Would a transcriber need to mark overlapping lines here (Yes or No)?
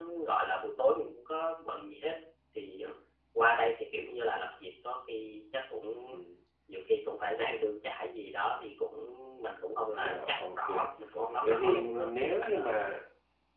Yes